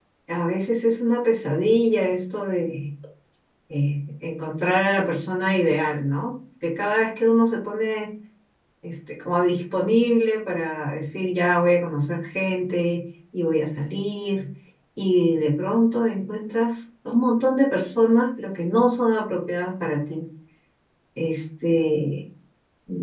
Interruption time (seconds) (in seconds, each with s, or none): none